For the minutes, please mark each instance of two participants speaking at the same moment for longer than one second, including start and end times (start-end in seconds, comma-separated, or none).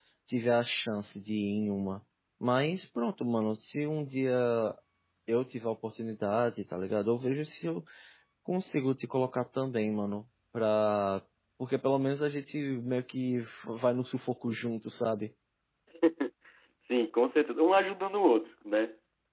none